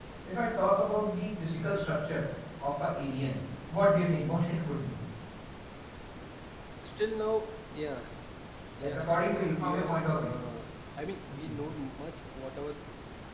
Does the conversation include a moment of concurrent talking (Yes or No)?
Yes